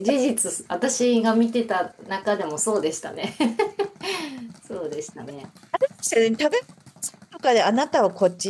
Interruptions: none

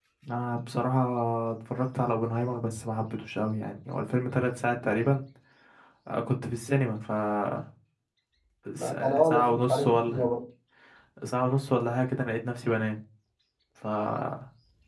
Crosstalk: present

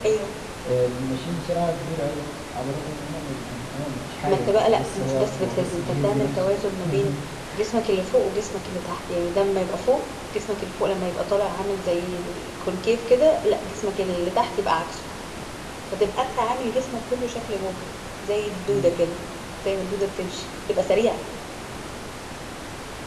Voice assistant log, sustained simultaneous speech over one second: present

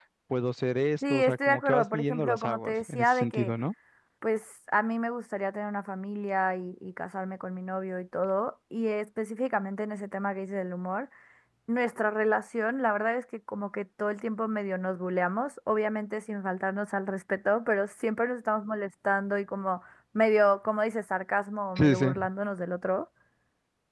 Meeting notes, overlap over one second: present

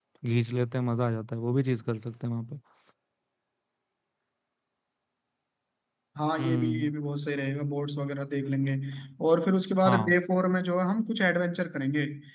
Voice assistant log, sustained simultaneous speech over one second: none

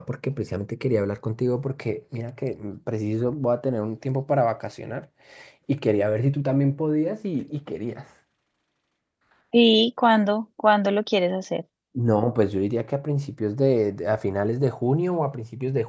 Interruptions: none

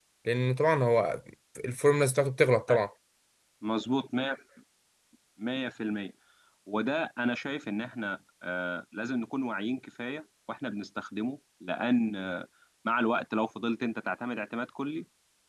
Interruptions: none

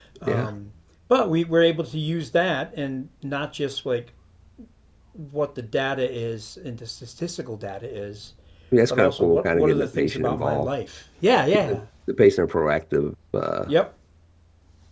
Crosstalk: present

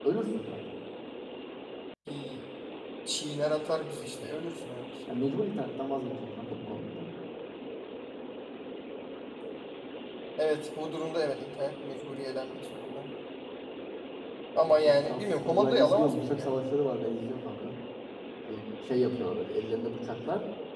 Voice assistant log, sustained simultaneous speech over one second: present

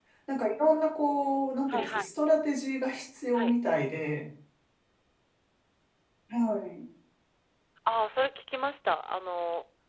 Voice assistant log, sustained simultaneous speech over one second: none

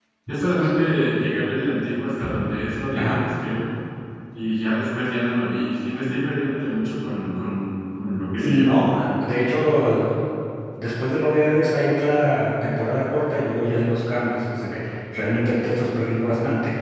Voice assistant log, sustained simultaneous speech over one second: none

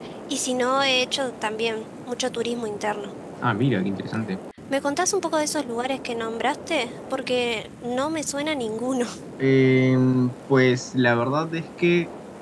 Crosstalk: none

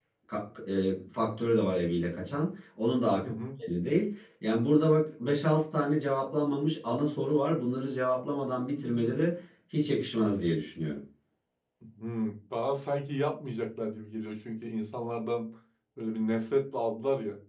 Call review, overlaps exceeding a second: none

